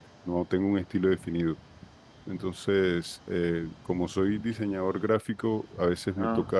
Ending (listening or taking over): listening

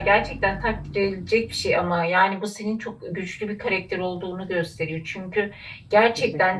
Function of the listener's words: listening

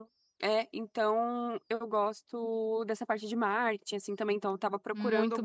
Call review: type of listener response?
listening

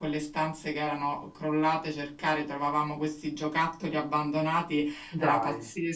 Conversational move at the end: listening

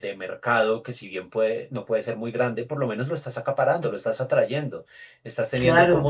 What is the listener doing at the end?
listening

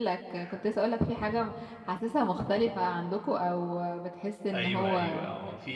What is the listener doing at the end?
taking over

